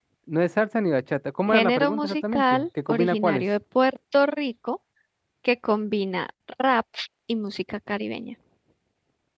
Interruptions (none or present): present